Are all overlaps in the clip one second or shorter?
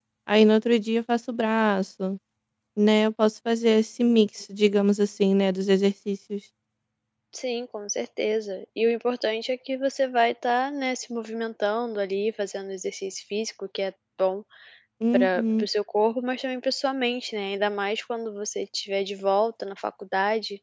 Yes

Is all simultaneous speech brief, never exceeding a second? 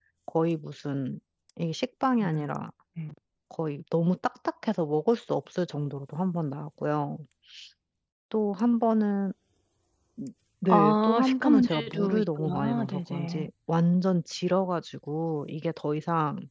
No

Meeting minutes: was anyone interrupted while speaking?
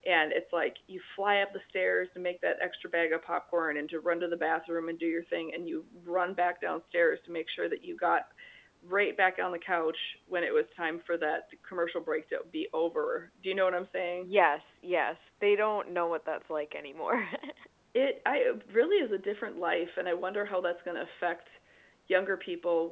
No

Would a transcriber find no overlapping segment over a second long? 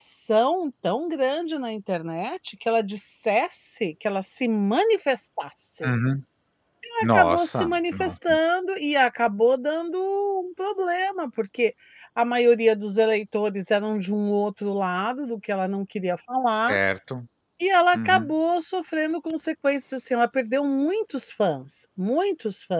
No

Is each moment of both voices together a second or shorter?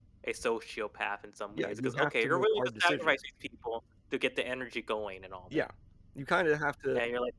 No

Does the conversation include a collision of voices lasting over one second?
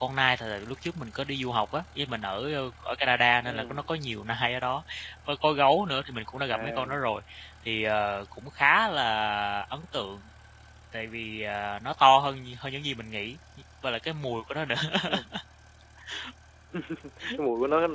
No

